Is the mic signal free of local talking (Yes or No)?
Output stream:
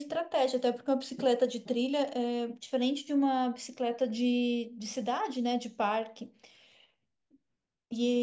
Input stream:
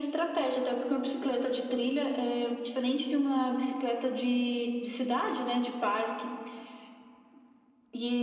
Yes